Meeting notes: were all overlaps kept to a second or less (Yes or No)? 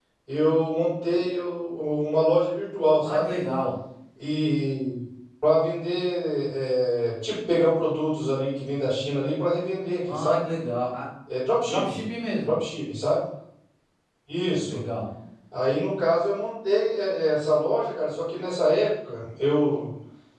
Yes